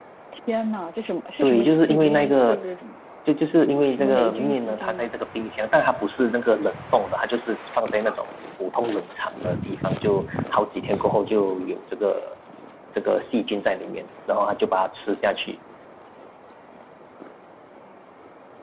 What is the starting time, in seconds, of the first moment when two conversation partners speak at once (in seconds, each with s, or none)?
1.4 s